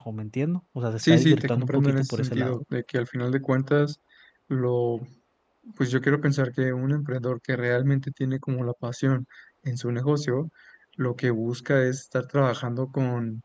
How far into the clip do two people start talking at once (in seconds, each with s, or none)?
1.0 s